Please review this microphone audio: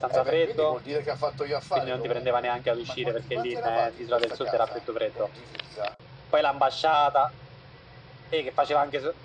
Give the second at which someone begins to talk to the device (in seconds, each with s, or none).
none